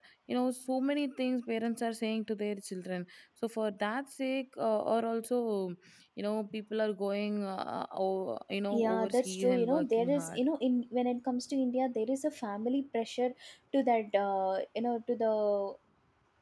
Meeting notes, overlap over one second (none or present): present